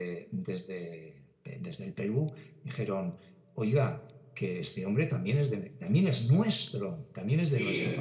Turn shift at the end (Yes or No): Yes